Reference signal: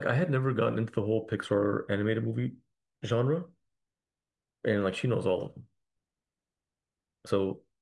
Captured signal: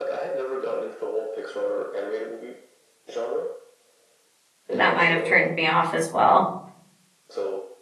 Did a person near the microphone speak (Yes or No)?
Yes